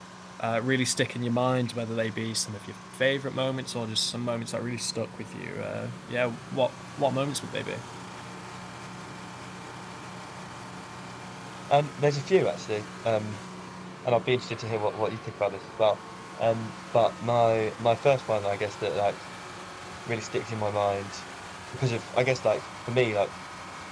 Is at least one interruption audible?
No

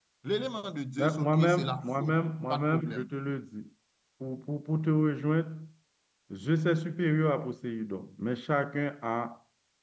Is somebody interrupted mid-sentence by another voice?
Yes, from 1.0 s

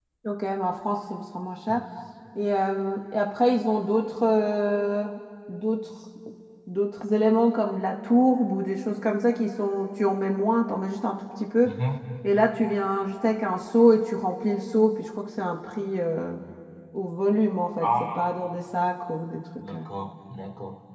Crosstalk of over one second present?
No

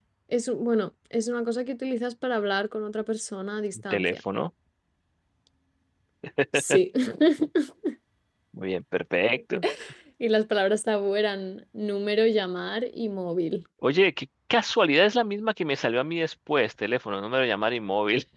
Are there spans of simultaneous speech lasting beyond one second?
No

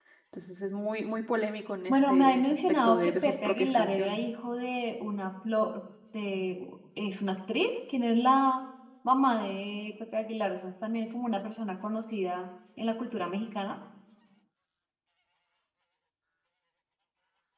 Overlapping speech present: Yes, from 1.9 s

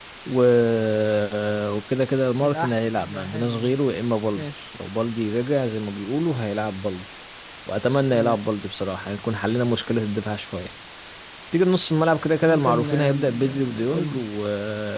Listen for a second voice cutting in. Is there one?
Yes, from 2.4 s

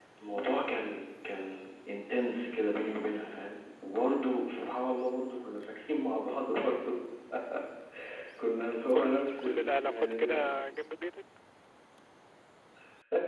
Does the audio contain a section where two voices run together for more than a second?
Yes, from 8.9 s

